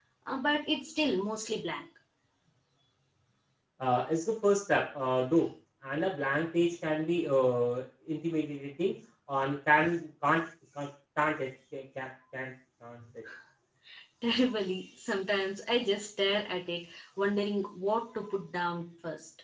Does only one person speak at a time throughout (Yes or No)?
Yes